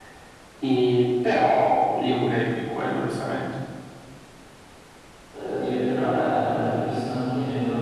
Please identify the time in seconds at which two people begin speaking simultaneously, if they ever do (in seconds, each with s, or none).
none